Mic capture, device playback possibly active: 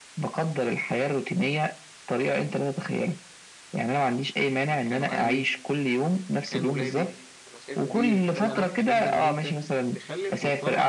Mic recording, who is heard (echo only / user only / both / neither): both